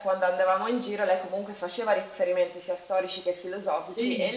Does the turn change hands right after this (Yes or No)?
No